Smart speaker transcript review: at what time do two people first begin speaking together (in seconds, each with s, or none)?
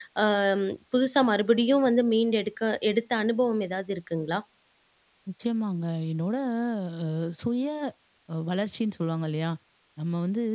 none